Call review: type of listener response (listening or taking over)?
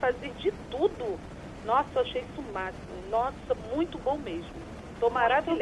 taking over